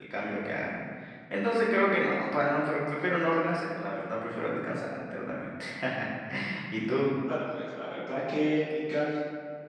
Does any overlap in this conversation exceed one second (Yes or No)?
No